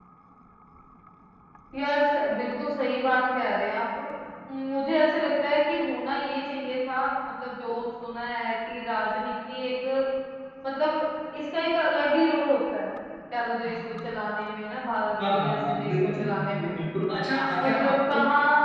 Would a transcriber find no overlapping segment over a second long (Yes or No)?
No